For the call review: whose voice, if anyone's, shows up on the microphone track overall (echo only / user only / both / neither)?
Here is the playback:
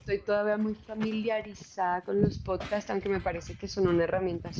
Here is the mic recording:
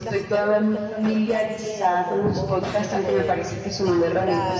both